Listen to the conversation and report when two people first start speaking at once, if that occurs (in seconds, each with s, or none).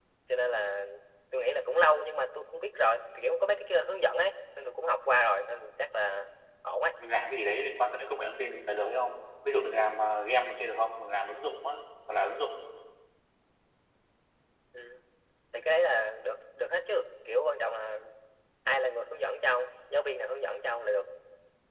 none